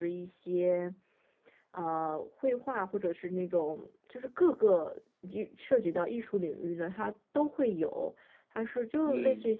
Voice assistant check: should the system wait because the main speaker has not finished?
Yes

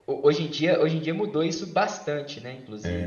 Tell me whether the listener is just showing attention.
No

